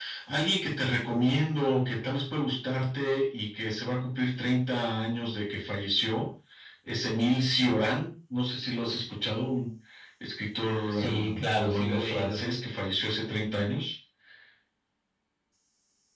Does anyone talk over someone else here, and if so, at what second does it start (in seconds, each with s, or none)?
10.9 s